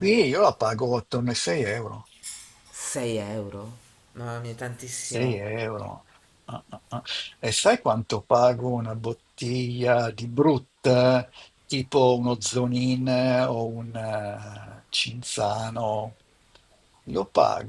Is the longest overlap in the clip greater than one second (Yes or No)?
No